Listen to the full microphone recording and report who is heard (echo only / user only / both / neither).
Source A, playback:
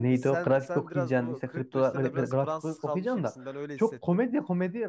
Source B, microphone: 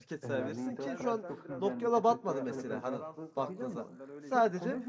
both